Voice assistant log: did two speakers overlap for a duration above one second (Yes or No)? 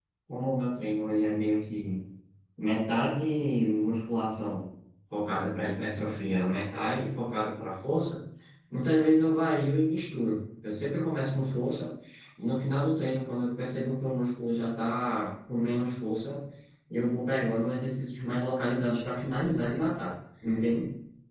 No